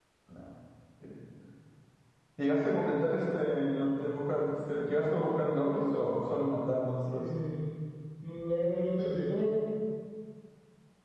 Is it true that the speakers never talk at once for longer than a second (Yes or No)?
Yes